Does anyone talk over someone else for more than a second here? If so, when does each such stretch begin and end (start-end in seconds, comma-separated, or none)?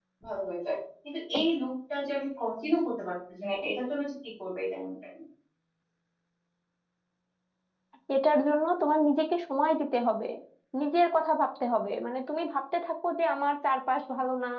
none